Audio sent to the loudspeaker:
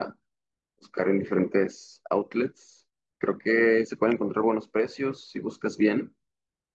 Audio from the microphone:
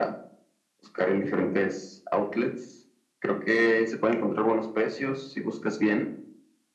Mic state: echo only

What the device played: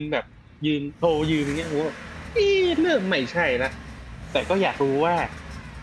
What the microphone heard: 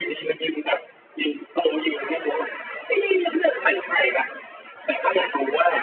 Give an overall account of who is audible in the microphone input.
echo only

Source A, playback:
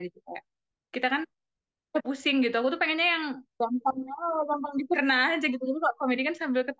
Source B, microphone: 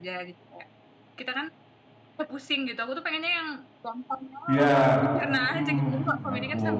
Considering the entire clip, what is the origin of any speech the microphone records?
both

